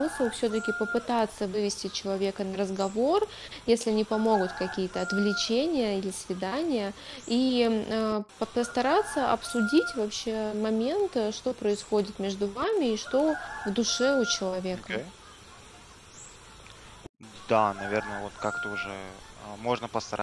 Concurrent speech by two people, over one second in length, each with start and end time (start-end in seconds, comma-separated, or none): none